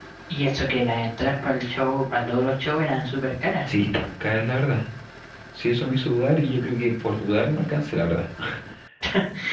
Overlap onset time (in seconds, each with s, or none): none